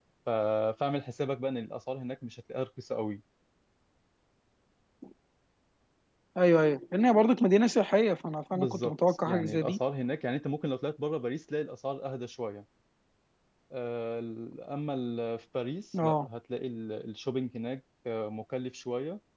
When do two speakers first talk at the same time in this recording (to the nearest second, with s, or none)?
9 s